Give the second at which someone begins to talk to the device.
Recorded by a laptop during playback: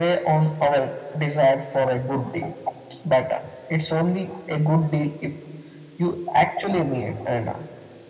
none

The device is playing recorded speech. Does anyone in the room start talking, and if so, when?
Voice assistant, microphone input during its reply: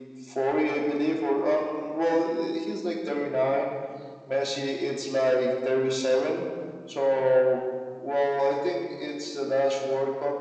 none

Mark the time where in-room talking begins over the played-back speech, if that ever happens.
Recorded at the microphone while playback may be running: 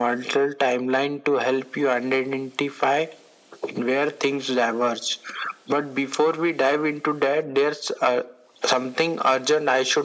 none

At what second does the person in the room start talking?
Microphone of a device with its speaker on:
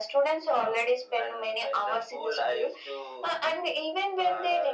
none

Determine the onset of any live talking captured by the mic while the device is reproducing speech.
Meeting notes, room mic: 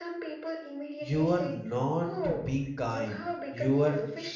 1.0 s

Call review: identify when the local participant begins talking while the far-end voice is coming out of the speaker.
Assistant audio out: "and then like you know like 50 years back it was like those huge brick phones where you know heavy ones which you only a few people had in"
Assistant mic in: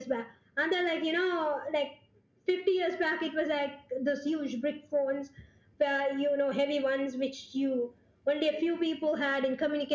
none

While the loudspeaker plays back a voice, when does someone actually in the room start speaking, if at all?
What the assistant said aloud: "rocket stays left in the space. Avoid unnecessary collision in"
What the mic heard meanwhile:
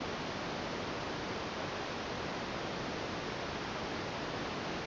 none

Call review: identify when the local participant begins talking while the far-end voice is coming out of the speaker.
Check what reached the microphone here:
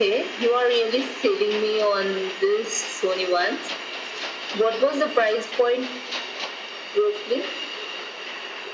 none

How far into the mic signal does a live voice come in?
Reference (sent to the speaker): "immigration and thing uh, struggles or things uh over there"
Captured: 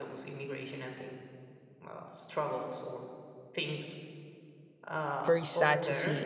5.2 s

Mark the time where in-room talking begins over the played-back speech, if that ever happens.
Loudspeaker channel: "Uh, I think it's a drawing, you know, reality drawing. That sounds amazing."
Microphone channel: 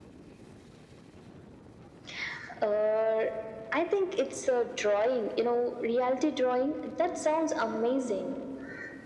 none

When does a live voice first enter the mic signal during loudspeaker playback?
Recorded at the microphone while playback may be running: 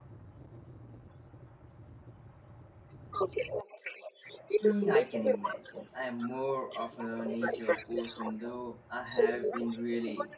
4.6 s

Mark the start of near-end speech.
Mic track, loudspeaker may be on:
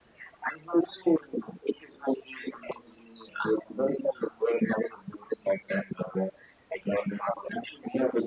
none

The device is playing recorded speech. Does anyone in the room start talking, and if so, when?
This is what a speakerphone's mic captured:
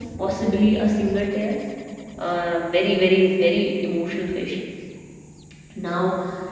none

